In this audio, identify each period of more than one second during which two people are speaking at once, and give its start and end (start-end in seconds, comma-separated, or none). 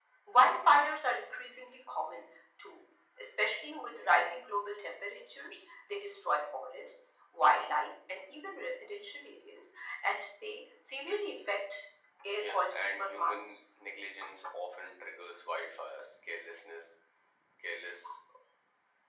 12.4-13.6